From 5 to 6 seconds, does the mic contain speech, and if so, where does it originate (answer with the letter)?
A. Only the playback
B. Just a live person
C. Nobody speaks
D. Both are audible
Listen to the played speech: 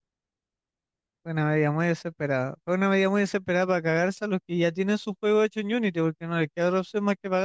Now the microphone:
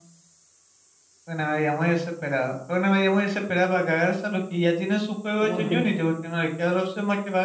D